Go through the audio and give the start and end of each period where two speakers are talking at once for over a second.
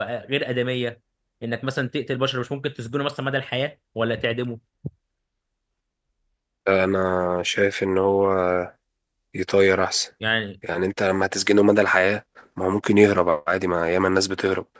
none

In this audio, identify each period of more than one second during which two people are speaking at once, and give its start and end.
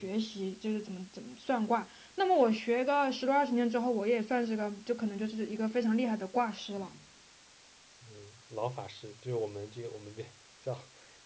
none

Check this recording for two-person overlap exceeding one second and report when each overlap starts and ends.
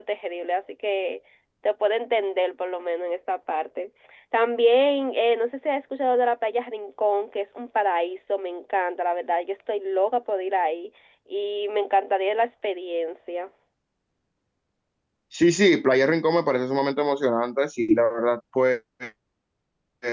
none

